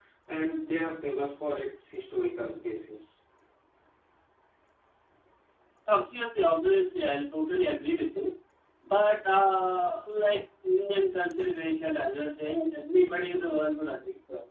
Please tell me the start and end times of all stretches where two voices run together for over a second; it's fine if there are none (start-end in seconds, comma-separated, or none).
none